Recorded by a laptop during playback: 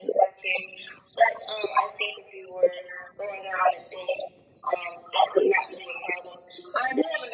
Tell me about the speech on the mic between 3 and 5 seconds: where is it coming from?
echo only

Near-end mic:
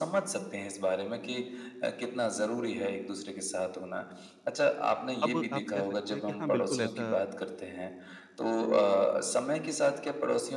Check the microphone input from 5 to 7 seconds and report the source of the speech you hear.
both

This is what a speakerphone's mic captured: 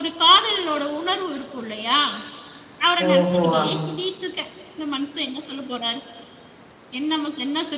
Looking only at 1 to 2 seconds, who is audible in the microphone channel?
echo only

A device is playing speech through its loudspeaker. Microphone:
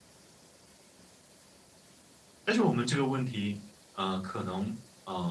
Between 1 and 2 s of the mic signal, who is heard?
neither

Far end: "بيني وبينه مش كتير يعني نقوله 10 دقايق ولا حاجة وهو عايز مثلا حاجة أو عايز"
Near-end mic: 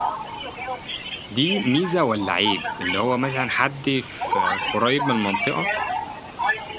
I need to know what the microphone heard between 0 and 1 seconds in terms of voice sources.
echo only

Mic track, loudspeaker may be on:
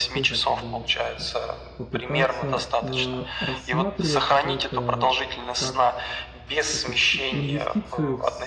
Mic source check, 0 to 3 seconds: both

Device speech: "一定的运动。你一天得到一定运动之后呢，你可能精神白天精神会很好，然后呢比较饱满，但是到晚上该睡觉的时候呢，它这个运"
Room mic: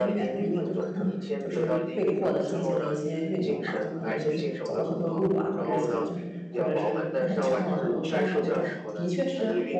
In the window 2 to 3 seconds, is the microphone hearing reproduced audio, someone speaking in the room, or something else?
both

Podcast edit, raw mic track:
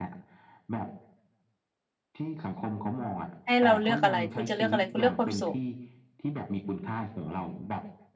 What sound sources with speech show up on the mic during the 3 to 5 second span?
both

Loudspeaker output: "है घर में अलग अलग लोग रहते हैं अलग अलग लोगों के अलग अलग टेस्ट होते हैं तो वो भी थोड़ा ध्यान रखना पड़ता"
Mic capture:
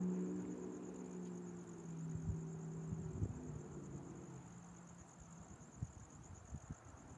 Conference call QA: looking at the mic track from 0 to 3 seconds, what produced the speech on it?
neither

